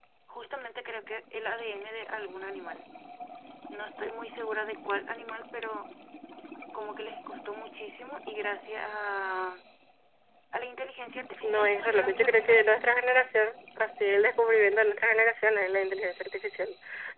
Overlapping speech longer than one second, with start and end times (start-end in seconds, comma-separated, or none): 11.4-12.7